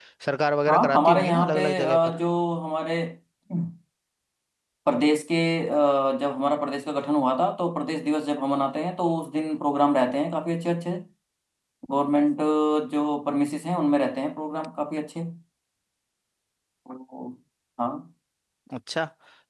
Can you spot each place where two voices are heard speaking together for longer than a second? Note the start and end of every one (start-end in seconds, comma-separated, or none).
0.7-2.0